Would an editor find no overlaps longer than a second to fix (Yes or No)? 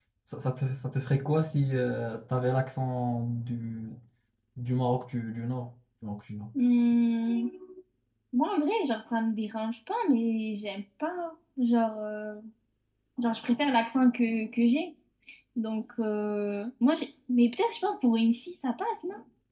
Yes